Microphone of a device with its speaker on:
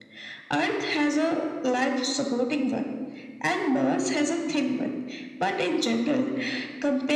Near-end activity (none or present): none